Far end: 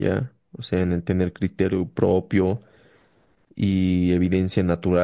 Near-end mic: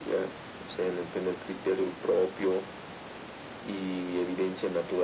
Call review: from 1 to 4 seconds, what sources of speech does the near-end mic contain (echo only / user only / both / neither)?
echo only